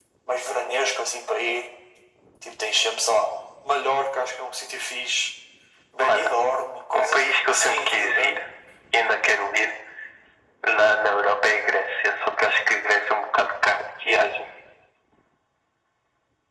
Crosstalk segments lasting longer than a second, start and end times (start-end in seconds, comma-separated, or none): 6.9-8.4